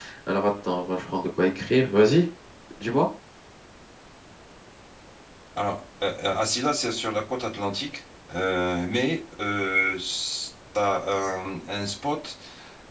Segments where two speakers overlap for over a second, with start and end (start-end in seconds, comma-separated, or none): none